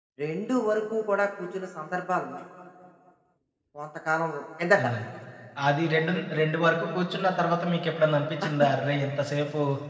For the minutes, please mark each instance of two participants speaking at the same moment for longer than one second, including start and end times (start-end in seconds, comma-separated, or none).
none